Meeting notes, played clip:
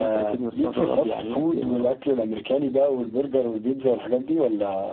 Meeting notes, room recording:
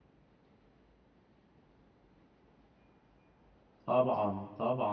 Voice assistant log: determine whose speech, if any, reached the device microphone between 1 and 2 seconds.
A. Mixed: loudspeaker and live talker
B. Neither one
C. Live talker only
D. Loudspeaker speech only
B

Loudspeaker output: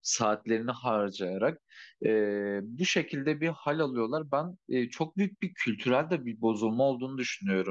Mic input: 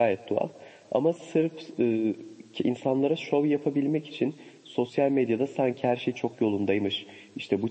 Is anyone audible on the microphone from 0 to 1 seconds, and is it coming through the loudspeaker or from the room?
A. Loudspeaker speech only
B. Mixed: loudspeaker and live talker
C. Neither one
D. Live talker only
D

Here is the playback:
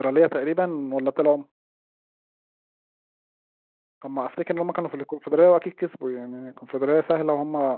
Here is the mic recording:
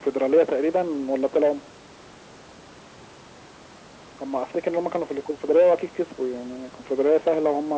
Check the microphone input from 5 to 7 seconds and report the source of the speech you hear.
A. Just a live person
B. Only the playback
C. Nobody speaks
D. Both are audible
B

